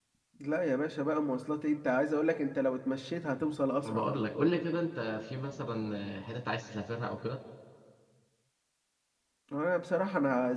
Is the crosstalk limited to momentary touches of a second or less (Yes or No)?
Yes